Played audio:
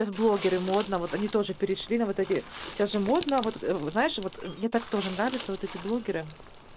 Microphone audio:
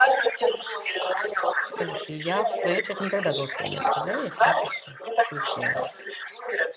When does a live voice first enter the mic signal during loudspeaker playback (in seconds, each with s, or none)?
1.8 s